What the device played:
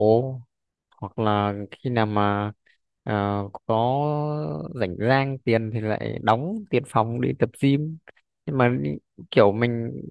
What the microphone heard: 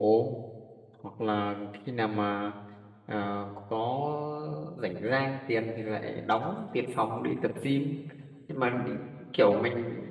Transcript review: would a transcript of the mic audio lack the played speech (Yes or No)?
No